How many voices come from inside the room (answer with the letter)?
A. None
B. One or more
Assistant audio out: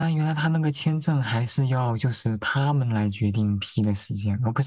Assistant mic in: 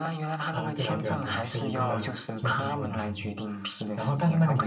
B